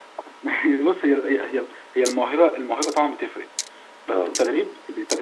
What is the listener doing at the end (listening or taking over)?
listening